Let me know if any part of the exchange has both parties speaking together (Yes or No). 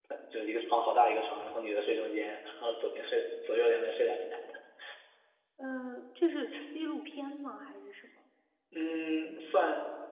No